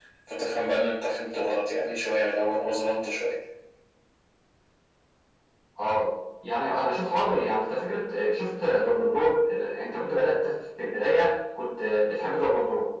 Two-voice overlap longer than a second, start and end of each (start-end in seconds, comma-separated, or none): none